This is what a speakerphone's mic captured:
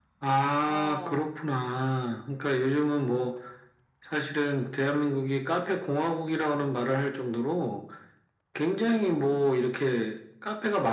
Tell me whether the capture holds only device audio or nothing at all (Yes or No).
No